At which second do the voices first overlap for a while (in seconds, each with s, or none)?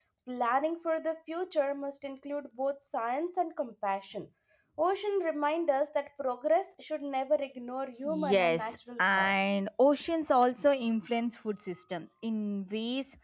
8.0 s